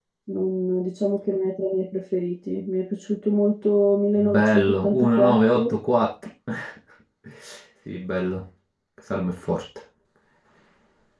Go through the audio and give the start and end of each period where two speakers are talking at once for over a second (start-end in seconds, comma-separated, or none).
4.3-5.6